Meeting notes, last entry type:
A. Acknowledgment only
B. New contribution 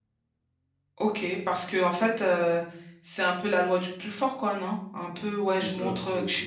A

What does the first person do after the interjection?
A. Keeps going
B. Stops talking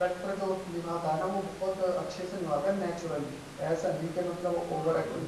B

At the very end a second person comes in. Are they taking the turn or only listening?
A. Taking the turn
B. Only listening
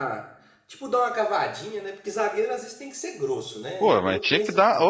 A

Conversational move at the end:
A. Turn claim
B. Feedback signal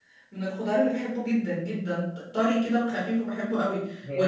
B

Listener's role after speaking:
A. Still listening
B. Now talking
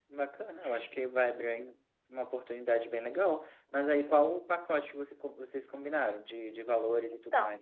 B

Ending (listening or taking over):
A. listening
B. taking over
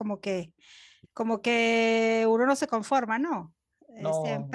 A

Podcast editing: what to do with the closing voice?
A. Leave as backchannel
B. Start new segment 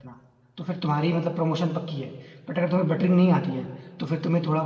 A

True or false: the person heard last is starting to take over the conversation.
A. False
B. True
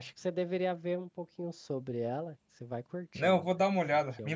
B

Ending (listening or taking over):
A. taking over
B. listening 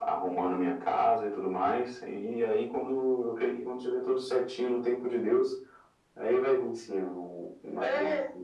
A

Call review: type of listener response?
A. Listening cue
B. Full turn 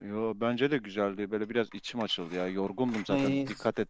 A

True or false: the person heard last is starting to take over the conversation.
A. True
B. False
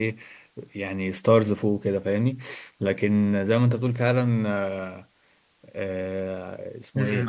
A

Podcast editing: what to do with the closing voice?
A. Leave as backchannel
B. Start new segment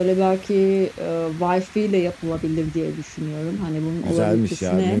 B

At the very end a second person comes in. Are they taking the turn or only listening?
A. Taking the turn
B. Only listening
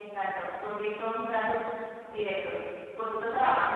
B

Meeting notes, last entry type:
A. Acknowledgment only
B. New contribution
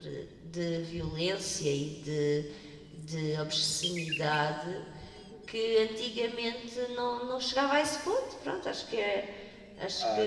B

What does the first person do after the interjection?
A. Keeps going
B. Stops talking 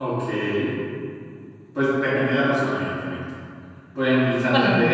A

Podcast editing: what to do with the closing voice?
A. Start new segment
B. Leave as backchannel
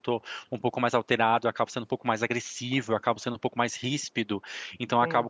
B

